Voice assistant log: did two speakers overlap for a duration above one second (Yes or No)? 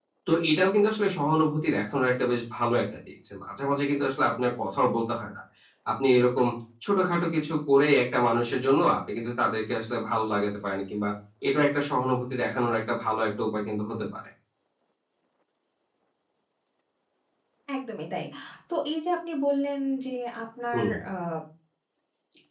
No